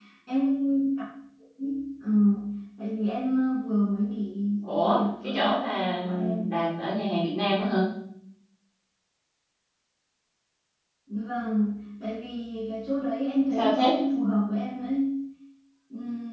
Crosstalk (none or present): present